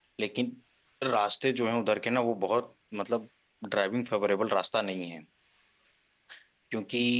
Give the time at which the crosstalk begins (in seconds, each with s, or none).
none